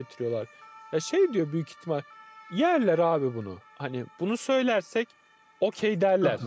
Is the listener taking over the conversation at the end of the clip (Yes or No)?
Yes